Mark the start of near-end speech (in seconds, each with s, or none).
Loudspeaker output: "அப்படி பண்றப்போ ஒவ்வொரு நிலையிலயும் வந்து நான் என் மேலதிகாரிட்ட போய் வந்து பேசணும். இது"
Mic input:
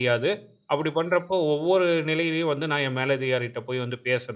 none